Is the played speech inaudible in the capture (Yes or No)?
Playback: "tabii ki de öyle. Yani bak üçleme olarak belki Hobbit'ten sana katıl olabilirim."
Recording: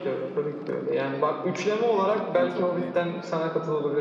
No